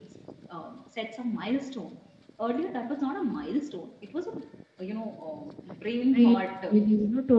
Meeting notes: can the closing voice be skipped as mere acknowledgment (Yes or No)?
No